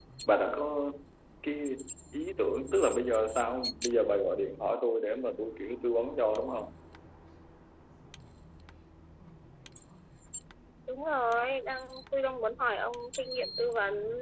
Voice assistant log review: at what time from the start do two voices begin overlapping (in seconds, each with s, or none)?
none